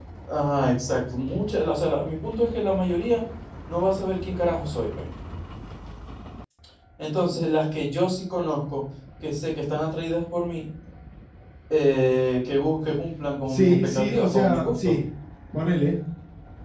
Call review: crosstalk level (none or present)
present